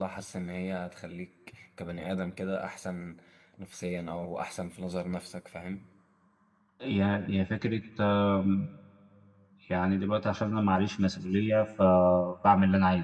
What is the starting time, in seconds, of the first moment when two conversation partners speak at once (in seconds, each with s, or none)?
none